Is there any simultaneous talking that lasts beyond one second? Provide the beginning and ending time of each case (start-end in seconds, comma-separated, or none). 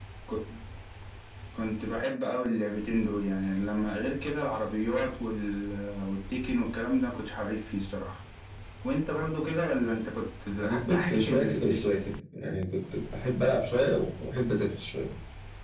10.6-11.9